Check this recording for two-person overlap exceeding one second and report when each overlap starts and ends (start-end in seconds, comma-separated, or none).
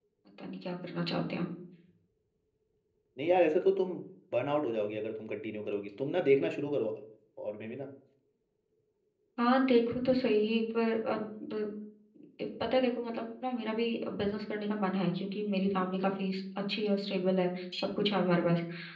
none